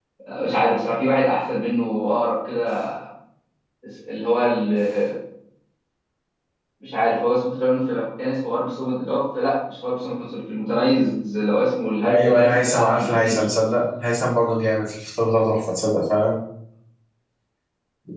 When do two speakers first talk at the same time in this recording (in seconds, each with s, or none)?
12.1 s